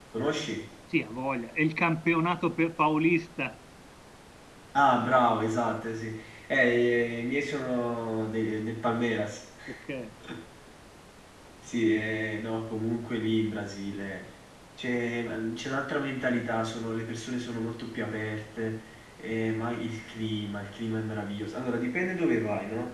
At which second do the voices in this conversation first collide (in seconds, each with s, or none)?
none